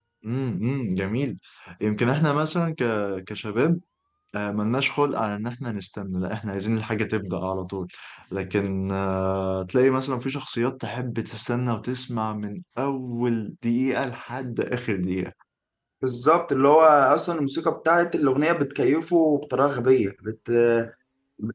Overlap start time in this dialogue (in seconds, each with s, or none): none